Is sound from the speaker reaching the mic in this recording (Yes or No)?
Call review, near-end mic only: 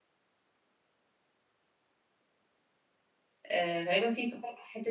No